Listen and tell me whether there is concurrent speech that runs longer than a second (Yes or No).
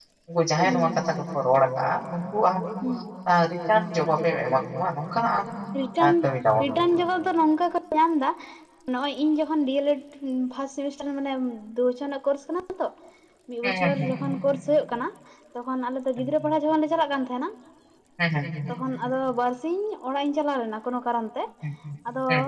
No